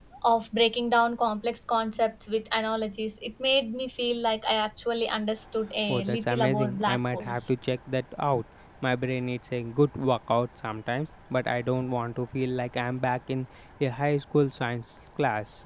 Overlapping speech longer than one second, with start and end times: 5.9-7.5

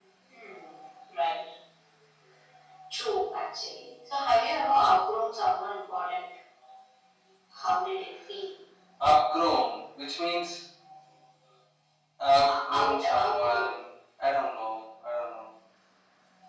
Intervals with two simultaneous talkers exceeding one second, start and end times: 12.5-13.8

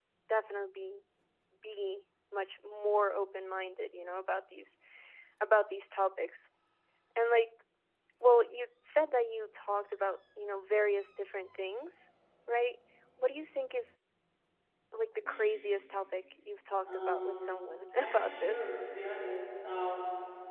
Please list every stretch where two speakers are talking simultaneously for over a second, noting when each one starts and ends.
16.9-18.8

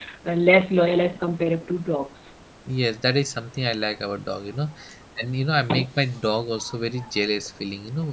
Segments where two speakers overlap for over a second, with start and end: none

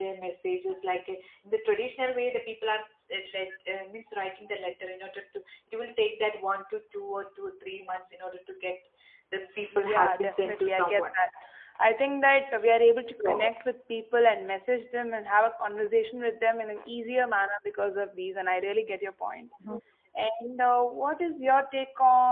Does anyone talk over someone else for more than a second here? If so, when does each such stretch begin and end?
9.7-11.2

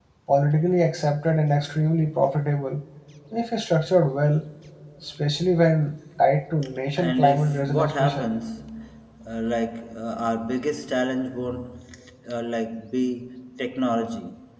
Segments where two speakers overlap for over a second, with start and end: 7.0-8.3

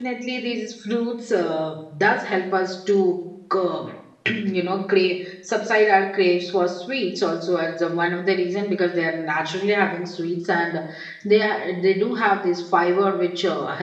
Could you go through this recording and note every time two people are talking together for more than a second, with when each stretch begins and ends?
none

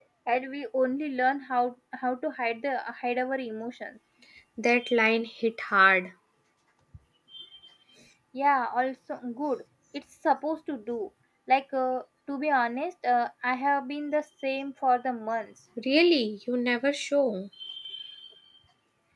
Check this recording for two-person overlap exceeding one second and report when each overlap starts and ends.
none

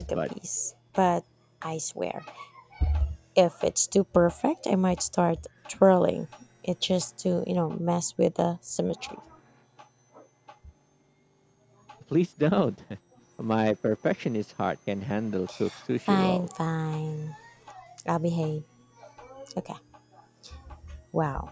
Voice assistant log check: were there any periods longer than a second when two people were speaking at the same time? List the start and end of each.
none

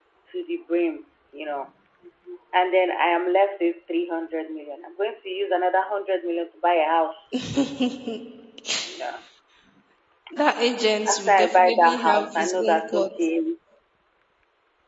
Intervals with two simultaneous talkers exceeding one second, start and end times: 11.1-13.2

